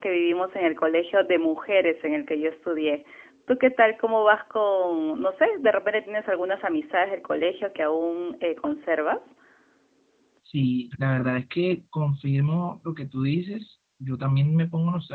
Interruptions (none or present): none